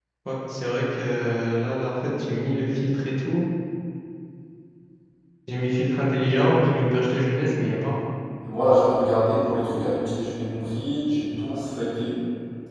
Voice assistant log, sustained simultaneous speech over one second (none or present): none